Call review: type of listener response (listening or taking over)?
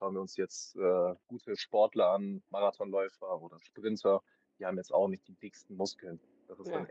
listening